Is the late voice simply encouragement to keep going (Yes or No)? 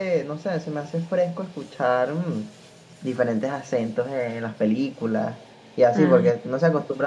Yes